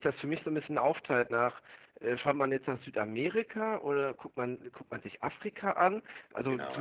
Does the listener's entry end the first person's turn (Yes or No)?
No